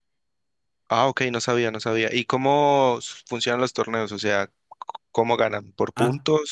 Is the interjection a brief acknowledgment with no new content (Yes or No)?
No